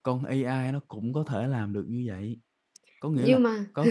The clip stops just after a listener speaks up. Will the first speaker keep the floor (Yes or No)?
Yes